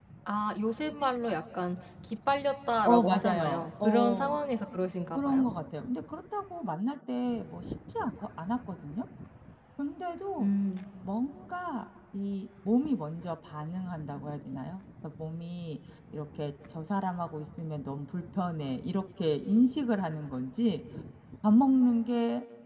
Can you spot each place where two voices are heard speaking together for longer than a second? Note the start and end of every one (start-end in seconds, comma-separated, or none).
2.8-4.4